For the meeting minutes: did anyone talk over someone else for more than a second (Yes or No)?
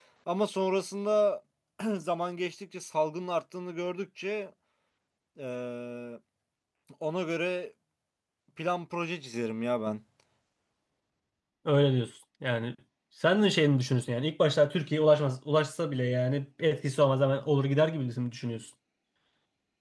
No